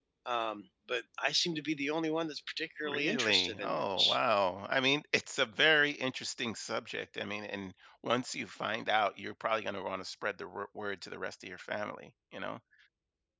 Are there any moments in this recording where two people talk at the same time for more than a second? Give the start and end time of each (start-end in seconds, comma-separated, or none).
2.9-4.2